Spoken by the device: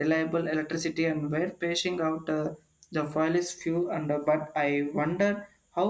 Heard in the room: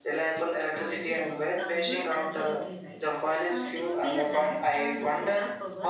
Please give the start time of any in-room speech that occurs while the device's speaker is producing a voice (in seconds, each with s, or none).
0.7 s